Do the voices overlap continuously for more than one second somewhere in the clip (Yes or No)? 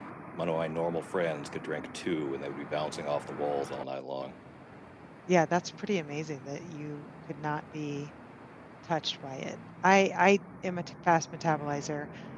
No